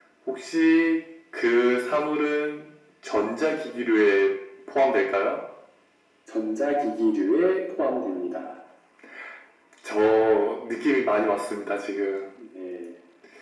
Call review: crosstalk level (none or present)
none